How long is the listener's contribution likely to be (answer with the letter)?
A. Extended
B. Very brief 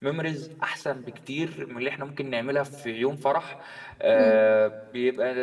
B